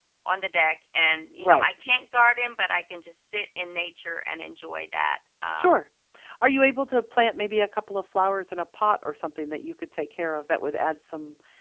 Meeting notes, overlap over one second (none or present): none